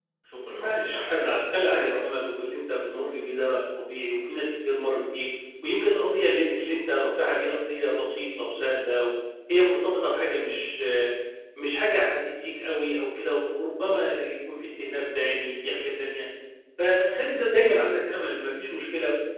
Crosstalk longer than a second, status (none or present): present